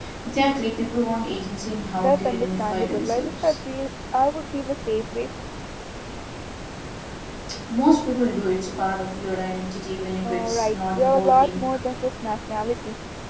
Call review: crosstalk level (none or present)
present